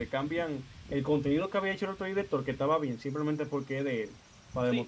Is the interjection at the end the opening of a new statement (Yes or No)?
Yes